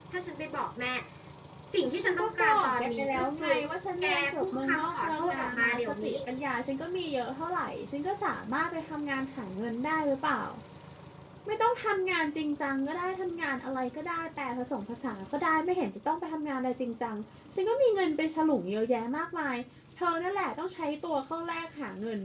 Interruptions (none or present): present